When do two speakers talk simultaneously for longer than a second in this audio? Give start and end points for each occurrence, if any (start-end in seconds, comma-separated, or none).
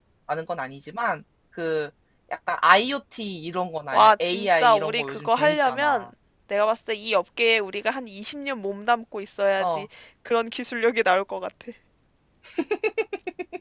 3.9-6.1